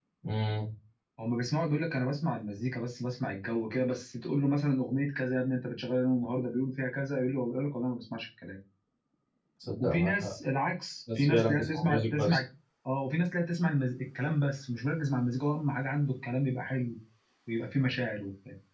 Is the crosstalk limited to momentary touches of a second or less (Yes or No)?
No